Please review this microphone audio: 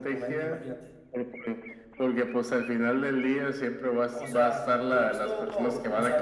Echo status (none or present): present